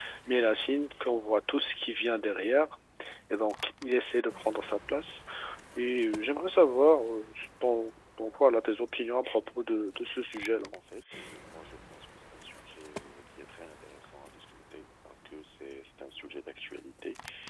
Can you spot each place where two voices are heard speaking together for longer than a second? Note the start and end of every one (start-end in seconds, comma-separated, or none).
none